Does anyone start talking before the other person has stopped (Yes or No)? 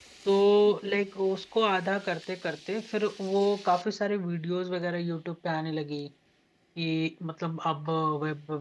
No